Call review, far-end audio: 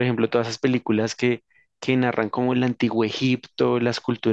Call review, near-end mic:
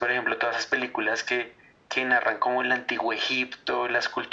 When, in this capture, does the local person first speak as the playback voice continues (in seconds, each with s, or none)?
none